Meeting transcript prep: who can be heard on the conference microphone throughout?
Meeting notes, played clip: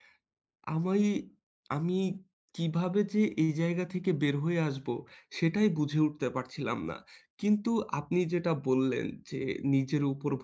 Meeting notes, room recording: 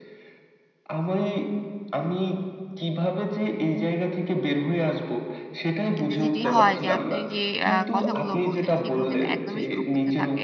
both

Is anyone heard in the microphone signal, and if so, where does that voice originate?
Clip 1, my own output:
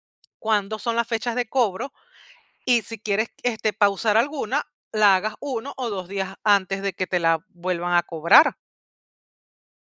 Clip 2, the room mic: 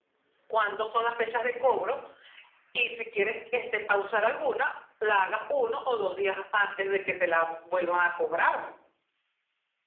echo only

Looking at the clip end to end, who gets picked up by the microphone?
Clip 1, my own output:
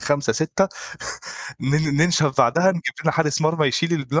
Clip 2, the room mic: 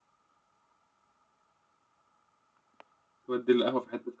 user only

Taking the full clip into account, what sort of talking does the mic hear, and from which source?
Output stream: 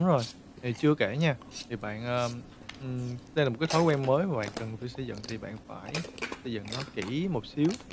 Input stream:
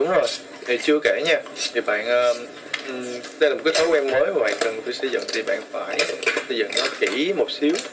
echo only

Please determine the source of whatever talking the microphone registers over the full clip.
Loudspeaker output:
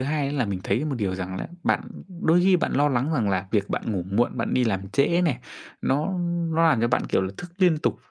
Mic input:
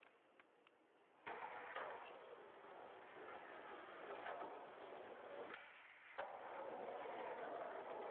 neither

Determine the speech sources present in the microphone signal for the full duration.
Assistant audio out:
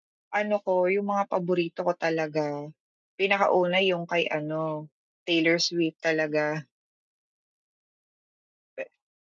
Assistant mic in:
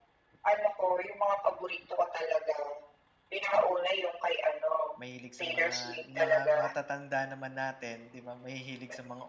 both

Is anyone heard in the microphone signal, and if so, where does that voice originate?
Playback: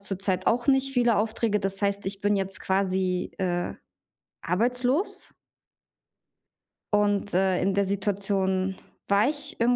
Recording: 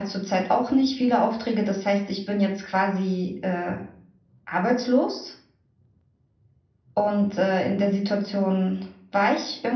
echo only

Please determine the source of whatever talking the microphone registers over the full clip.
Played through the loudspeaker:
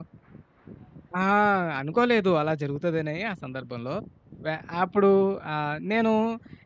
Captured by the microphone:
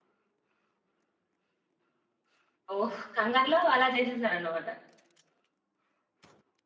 user only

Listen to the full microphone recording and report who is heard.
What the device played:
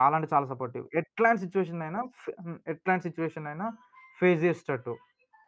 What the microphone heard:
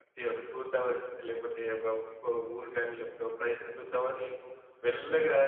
user only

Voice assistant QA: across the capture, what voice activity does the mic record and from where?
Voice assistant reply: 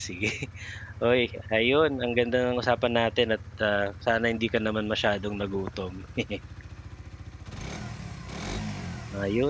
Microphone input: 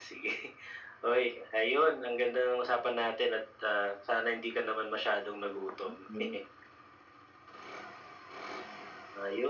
both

